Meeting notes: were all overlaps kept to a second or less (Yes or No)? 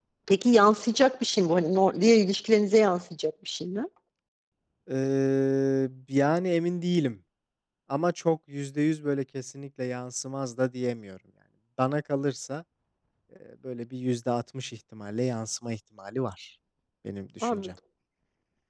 Yes